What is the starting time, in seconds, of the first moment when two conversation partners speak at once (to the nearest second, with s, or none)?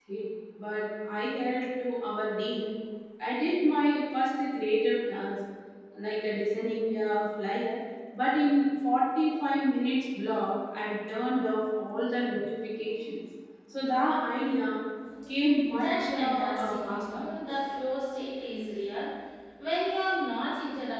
16 s